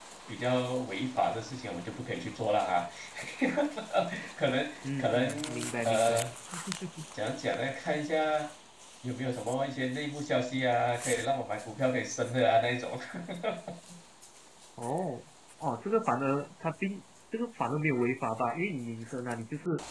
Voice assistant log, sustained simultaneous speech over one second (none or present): present